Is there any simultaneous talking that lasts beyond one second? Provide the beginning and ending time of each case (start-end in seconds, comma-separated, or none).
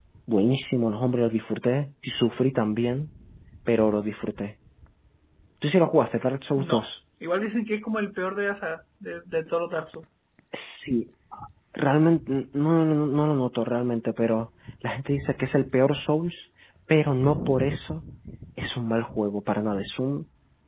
none